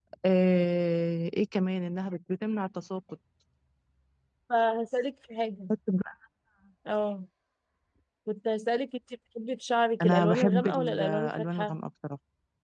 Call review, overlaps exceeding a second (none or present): present